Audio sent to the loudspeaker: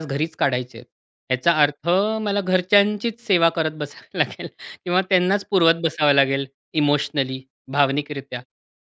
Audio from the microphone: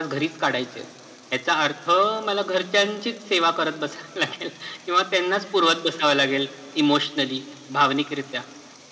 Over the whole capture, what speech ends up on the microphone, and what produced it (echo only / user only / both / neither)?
echo only